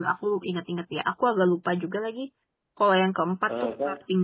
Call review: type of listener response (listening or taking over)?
listening